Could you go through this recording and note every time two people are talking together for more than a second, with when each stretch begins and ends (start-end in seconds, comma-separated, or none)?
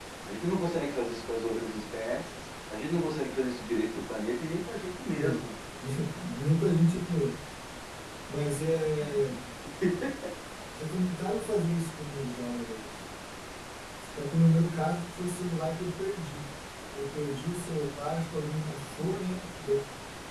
none